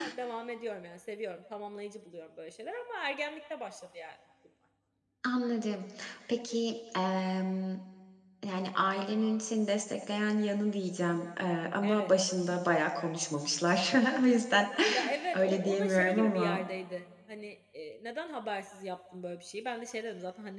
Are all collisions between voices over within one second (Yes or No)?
No